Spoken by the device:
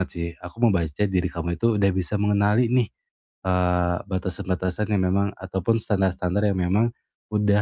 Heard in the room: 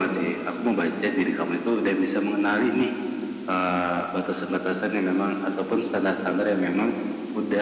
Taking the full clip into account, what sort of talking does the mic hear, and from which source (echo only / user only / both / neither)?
echo only